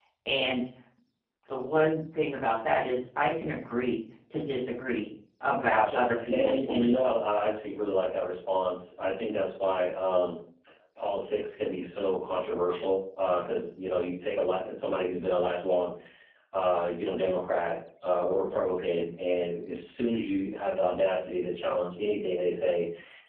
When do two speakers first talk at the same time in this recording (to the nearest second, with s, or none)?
6 s